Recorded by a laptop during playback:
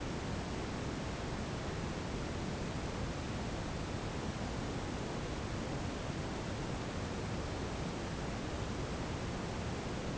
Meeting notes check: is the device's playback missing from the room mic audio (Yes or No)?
Yes